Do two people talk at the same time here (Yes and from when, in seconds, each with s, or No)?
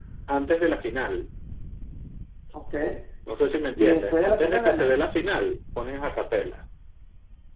Yes, from 3.8 s